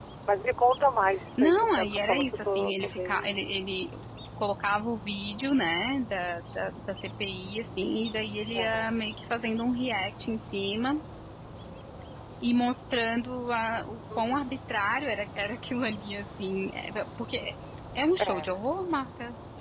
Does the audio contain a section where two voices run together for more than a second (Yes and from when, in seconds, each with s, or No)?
Yes, from 1.4 s